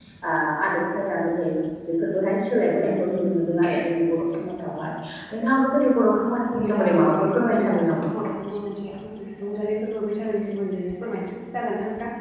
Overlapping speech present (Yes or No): Yes